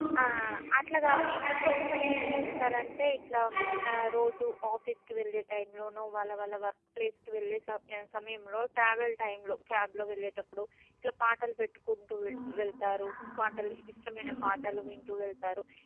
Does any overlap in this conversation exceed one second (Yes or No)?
Yes